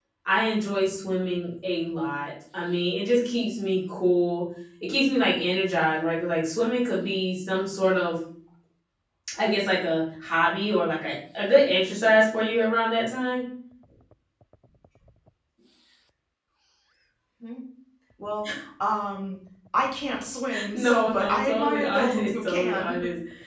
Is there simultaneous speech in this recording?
Yes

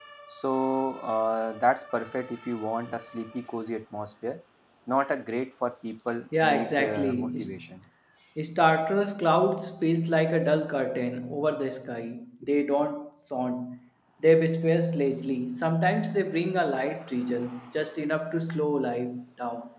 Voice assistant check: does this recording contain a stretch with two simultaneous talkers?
Yes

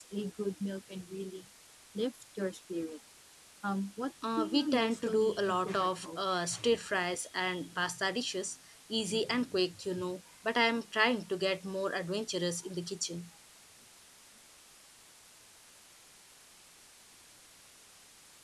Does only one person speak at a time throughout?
No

